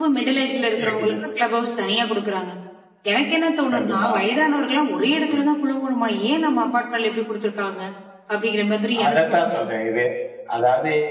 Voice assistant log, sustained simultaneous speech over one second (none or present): none